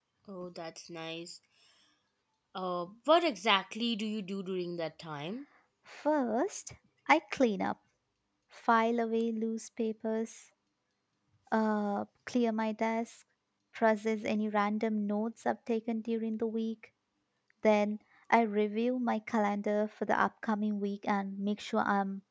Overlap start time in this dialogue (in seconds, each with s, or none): none